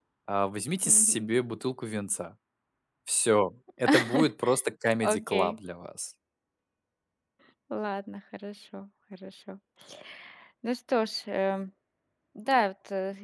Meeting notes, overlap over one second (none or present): none